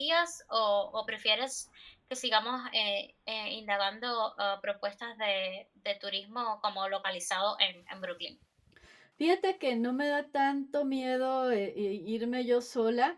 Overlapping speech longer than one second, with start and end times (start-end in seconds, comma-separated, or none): none